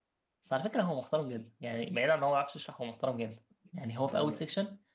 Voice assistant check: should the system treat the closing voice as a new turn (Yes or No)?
No